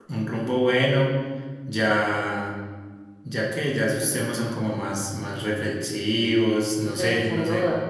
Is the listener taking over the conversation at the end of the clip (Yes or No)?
Yes